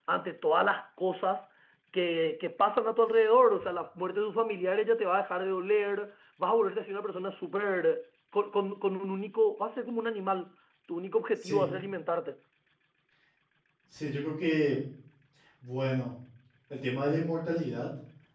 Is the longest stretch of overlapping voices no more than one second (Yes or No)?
Yes